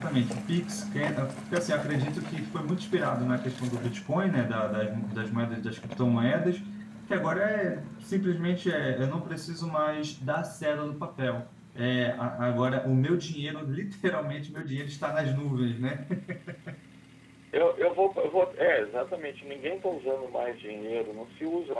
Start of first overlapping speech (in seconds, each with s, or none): none